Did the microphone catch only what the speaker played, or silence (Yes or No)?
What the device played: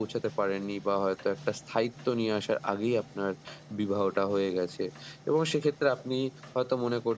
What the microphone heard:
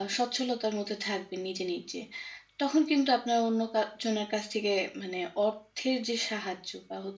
No